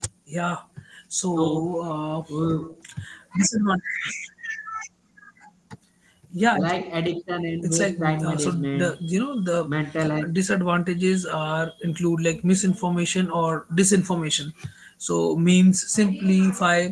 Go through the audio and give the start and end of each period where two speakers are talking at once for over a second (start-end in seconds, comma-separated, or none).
7.6-8.9